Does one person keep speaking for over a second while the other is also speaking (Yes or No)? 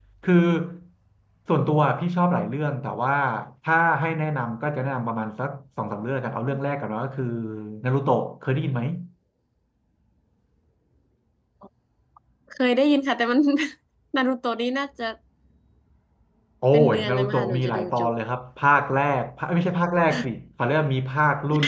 Yes